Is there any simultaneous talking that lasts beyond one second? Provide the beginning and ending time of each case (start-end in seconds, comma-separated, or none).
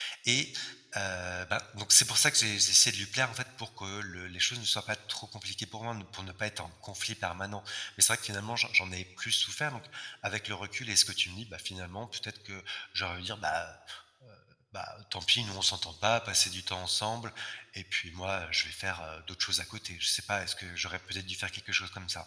none